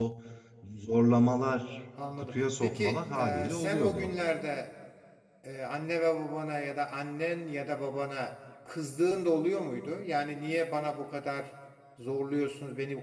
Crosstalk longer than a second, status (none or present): present